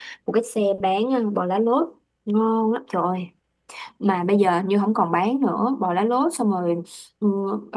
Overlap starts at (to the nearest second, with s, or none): none